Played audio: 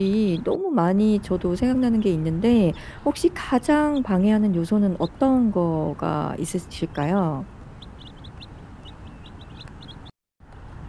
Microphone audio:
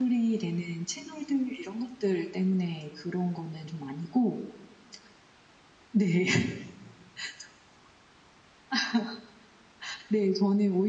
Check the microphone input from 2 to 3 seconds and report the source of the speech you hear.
user only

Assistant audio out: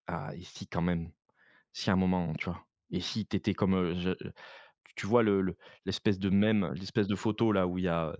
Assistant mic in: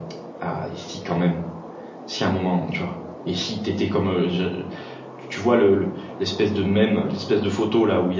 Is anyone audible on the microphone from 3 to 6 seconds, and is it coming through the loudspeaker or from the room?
echo only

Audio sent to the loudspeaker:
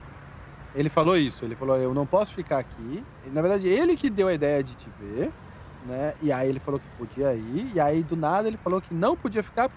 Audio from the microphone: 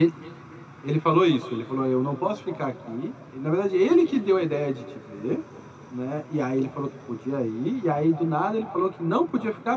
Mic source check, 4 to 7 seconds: echo only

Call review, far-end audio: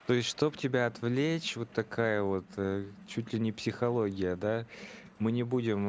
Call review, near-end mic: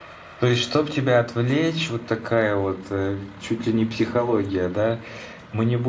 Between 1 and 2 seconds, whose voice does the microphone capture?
echo only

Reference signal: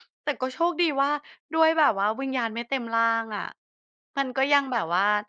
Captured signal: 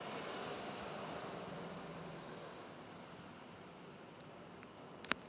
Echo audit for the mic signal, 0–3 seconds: neither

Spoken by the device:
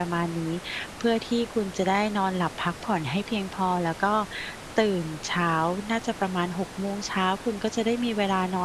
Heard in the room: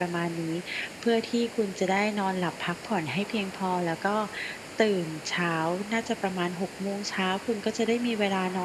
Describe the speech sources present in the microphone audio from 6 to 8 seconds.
echo only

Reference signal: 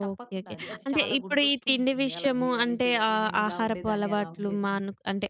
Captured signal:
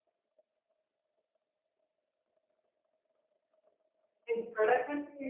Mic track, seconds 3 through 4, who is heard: neither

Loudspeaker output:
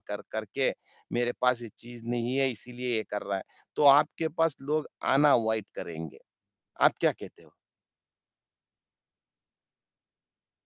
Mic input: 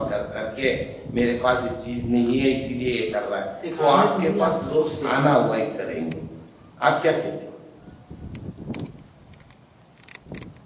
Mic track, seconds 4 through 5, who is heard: both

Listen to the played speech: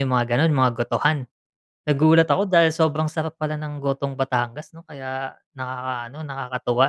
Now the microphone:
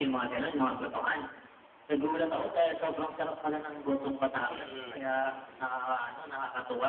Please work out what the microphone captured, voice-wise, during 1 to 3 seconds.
echo only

